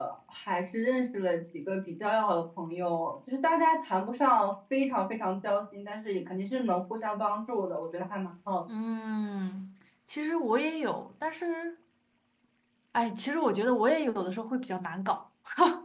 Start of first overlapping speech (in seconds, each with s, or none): none